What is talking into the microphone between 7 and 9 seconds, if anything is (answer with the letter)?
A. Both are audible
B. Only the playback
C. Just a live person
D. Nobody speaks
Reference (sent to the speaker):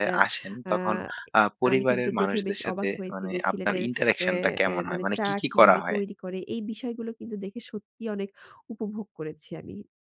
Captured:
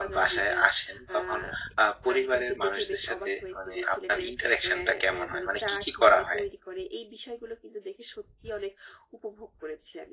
B